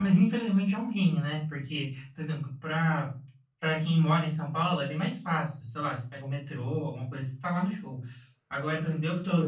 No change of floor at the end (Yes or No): Yes